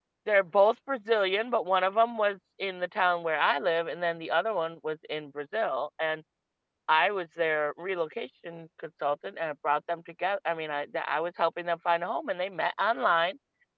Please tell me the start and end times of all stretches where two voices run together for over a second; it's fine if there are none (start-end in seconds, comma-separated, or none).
none